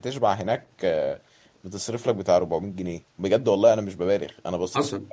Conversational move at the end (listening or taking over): taking over